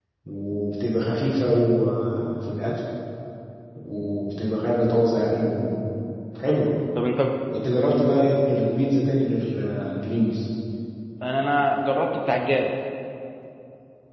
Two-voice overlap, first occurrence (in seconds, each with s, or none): none